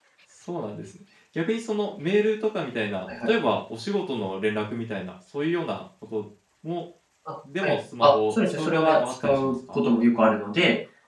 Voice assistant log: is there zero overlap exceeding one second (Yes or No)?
No